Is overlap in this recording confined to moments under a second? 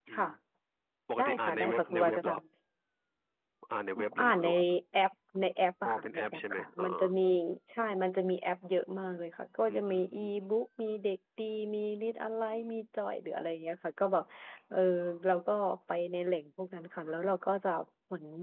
No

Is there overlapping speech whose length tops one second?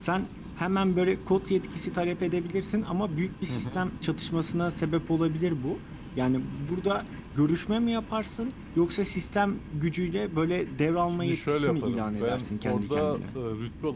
Yes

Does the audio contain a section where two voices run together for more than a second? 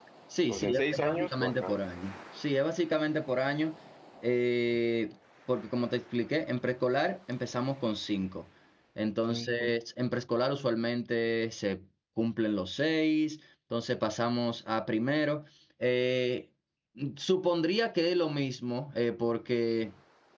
Yes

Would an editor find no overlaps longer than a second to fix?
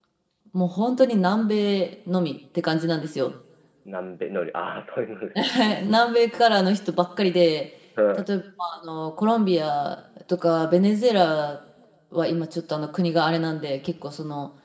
Yes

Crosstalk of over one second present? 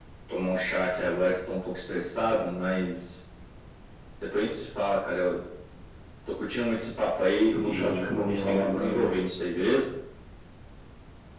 Yes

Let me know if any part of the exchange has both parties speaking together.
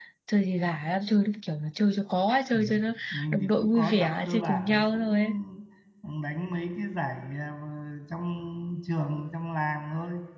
Yes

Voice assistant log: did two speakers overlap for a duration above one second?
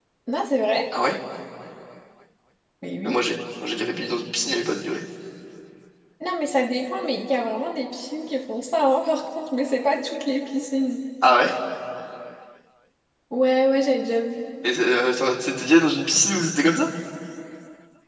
No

